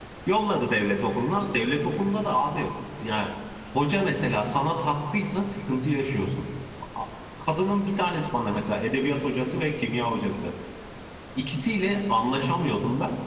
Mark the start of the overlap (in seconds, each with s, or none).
none